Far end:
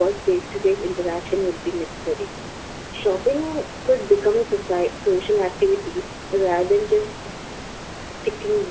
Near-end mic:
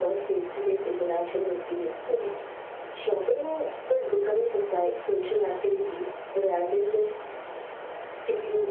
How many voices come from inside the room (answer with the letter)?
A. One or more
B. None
B